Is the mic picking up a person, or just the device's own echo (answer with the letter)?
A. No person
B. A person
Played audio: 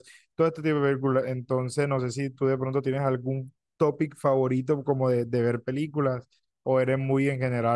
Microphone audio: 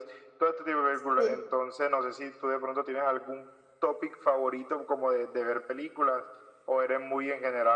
B